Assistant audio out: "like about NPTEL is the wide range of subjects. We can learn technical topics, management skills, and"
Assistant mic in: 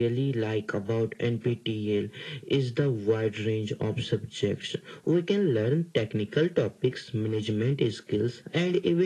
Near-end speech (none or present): none